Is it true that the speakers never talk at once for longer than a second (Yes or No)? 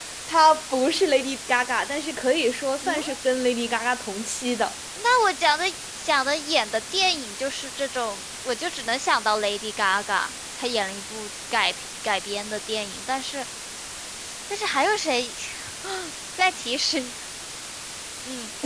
Yes